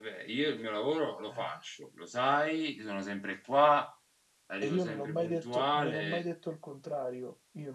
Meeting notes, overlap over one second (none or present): present